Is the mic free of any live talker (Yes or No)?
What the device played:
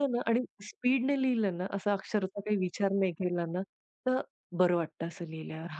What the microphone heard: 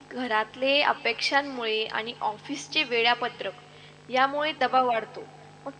No